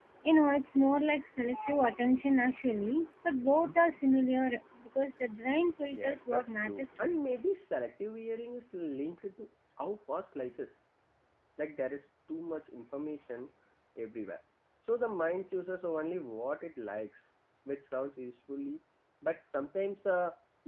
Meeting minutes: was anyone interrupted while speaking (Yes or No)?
Yes